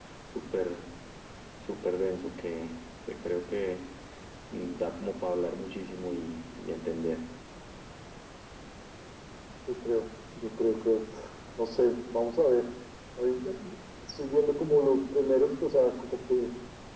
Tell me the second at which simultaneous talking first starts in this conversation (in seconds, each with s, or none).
none